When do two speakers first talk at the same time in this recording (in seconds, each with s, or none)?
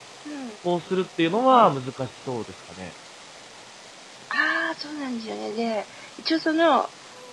none